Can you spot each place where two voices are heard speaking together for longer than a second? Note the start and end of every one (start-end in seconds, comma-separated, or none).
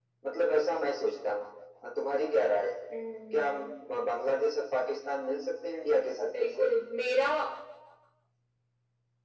none